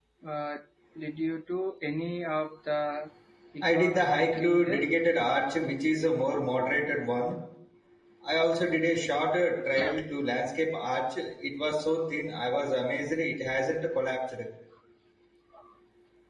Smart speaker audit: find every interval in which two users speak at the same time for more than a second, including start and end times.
3.6-4.9

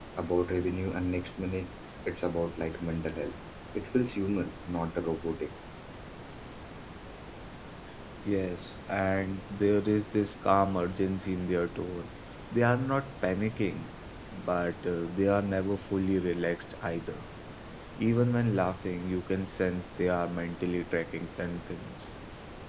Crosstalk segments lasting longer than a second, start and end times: none

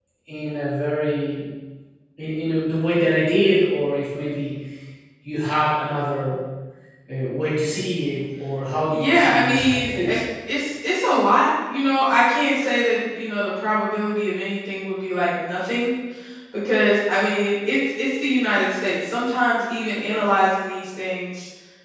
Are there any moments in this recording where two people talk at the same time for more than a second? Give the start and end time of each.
8.9-10.2

